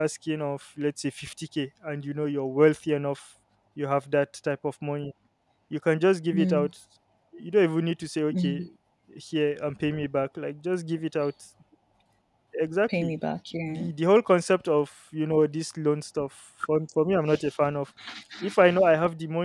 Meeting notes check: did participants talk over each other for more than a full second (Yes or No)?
No